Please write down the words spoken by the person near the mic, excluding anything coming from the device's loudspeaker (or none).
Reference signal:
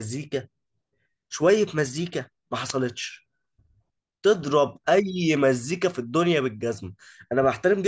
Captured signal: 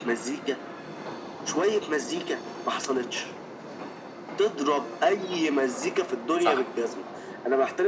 صح